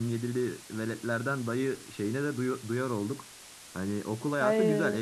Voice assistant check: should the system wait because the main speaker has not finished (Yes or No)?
Yes